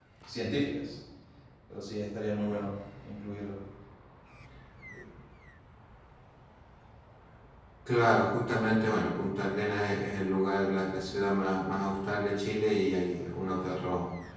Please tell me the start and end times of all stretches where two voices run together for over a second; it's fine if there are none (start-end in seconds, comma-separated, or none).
none